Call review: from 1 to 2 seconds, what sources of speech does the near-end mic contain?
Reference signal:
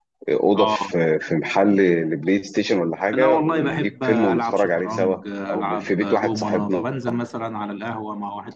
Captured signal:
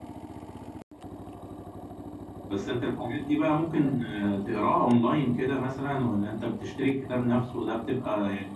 neither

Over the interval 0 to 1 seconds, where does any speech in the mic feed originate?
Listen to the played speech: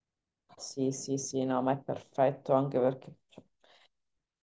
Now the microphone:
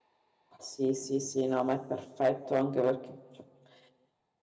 echo only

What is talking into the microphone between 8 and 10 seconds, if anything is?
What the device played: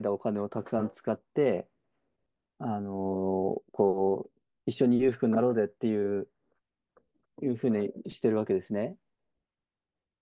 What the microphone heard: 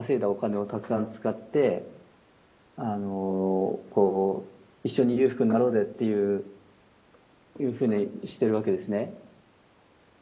echo only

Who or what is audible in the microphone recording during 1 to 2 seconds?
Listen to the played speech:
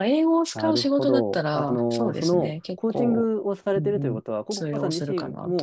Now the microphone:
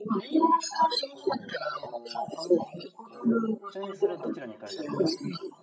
echo only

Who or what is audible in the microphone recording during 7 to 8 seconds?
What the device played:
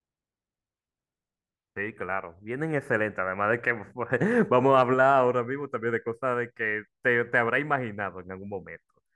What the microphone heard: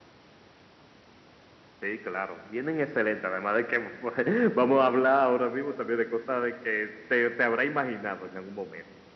echo only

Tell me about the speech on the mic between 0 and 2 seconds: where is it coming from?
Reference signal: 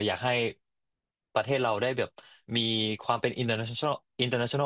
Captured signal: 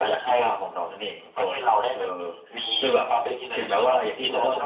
both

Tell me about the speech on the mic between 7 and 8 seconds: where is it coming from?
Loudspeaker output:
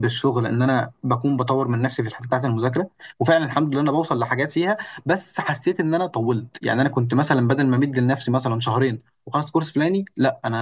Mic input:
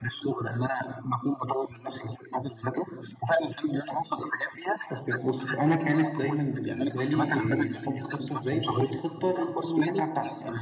both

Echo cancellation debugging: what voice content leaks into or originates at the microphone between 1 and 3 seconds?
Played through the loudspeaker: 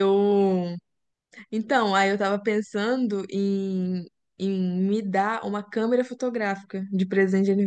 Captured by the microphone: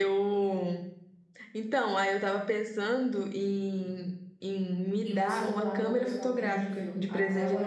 echo only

